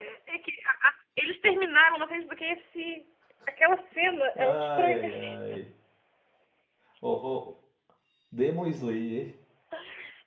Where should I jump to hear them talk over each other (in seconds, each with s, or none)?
4.4 s